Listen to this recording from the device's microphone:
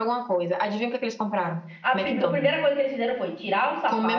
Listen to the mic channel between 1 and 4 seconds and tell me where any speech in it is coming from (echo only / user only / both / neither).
both